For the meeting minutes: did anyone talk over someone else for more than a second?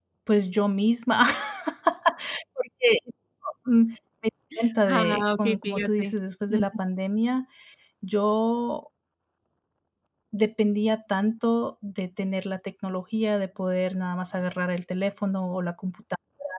Yes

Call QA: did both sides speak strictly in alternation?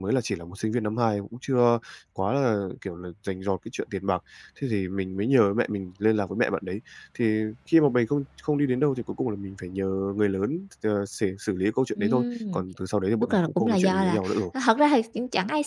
No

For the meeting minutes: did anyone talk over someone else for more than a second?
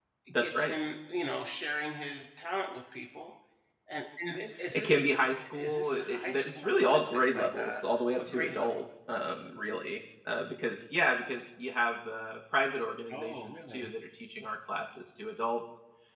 Yes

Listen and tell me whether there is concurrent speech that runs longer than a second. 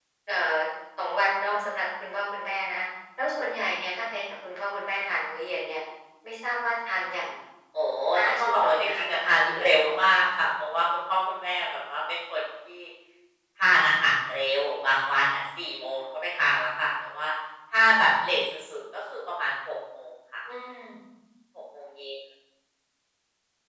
Yes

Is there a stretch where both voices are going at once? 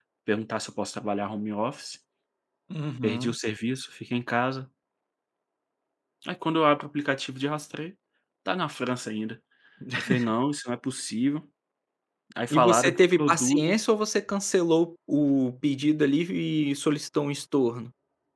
Yes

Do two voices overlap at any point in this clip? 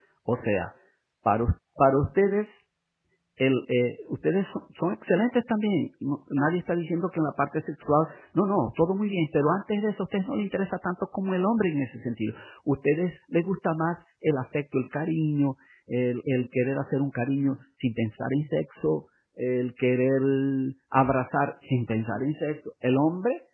No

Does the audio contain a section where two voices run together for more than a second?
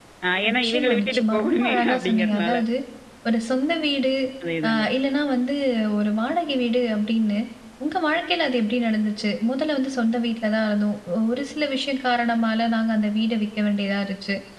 Yes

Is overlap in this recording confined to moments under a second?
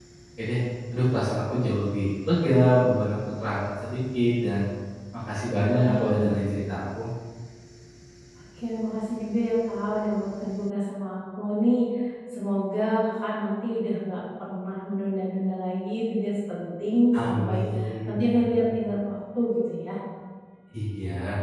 Yes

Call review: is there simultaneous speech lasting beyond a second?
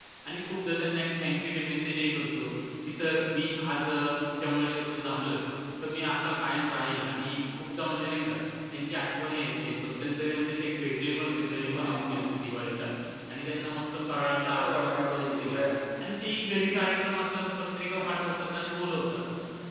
Yes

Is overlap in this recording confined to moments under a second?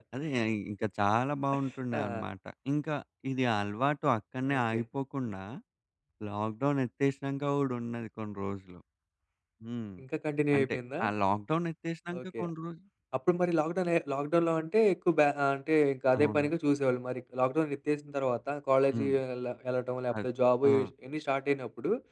Yes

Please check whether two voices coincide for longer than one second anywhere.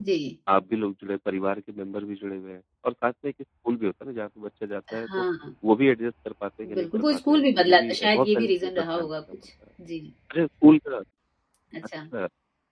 Yes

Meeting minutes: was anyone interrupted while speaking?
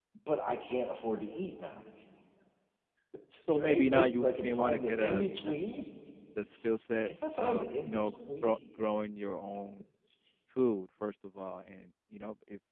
Yes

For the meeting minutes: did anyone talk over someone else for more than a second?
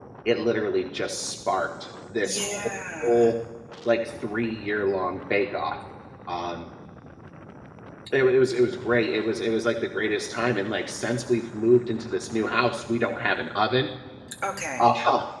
No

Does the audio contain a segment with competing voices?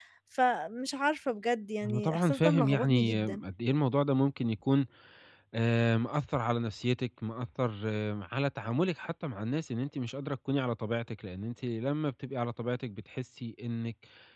Yes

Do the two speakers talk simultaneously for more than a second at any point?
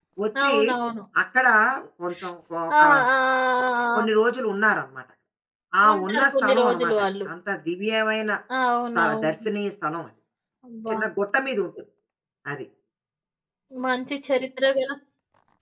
Yes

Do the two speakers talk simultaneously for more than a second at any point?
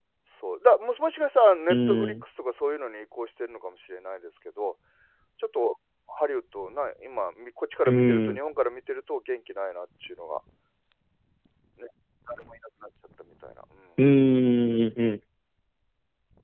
No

